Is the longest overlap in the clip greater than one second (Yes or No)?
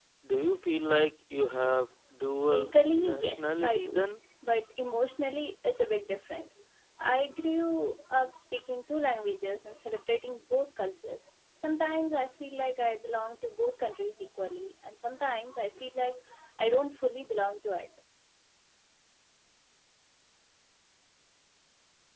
Yes